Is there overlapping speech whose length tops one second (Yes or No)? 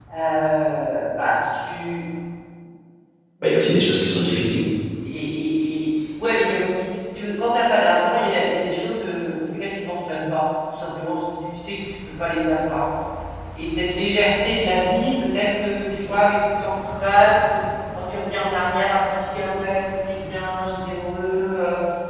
No